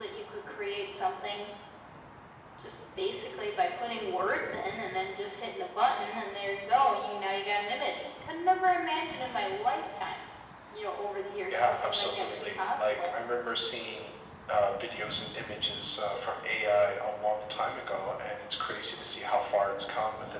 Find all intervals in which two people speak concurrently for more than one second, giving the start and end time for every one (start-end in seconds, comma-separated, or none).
11.5-13.1